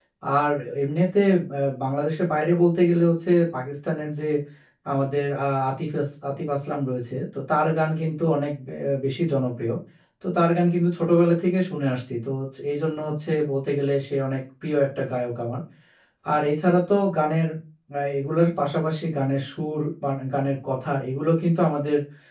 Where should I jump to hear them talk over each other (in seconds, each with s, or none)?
none